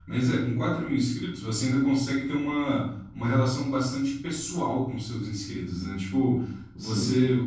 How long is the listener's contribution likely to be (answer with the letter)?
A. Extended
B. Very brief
B